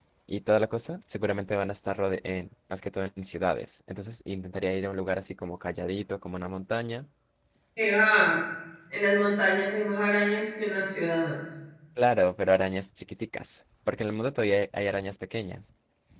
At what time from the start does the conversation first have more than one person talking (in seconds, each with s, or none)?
none